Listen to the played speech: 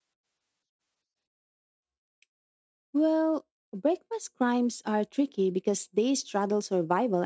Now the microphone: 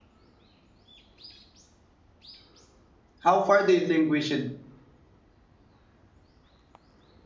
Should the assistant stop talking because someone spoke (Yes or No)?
Yes